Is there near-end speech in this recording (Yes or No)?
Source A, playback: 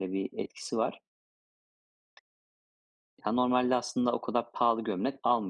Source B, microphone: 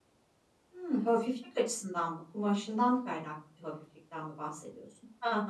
Yes